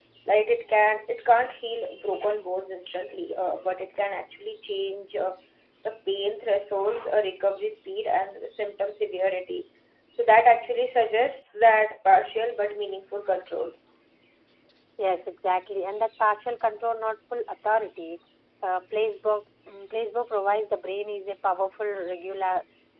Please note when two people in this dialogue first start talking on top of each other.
none

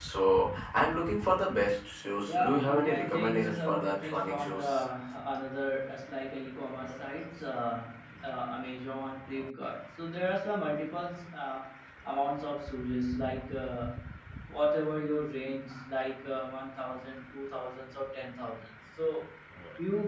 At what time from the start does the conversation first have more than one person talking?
2.2 s

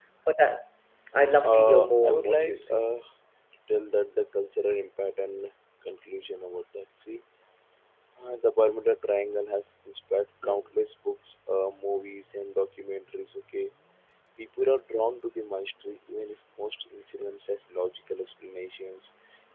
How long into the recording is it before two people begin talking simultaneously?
1.4 s

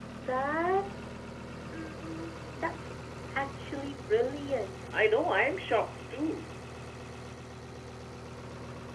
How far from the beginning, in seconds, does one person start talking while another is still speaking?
none

